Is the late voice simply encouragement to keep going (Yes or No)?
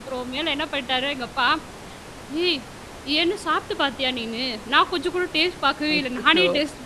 Yes